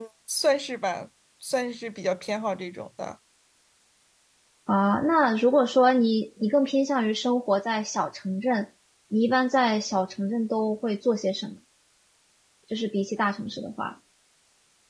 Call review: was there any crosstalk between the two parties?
No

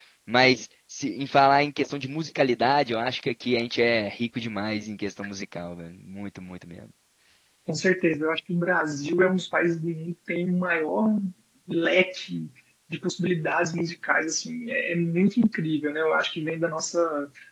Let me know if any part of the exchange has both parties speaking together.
No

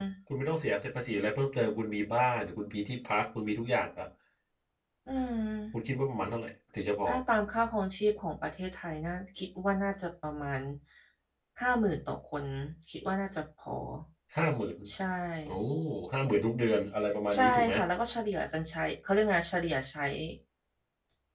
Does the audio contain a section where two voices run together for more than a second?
No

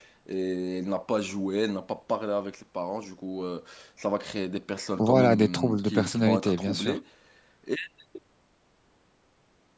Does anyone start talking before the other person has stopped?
Yes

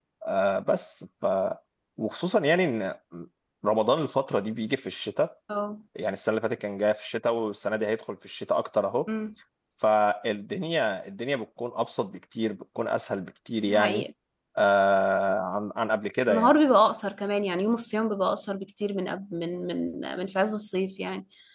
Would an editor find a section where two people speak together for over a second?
No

